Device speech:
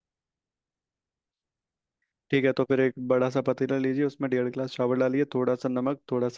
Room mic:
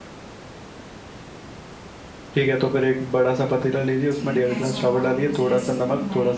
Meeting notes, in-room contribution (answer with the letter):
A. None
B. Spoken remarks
B